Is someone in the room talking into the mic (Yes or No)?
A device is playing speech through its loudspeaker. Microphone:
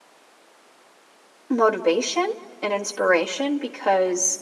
Yes